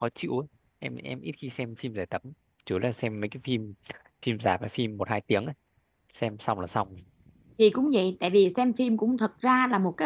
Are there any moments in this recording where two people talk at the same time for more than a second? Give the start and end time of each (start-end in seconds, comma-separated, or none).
none